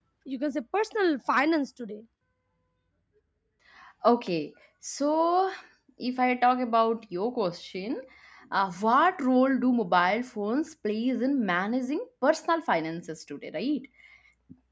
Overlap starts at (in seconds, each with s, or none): none